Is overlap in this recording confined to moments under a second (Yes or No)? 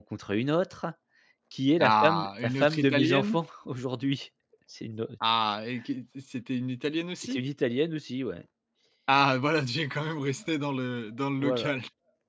No